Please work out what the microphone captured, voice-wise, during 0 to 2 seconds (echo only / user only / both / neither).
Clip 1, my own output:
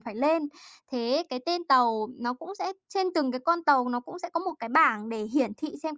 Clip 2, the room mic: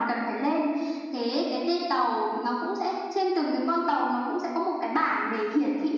echo only